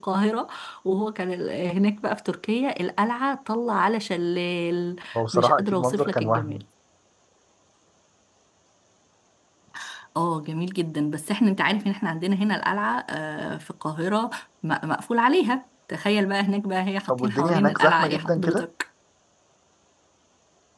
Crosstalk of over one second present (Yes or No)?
Yes